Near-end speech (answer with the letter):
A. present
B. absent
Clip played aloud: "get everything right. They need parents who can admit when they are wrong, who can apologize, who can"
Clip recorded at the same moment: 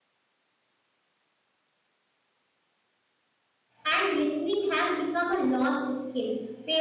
A